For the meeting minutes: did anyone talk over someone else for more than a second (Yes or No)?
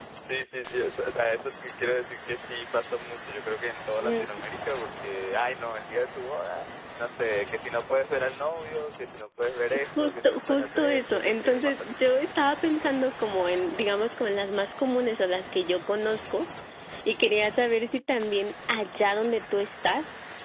Yes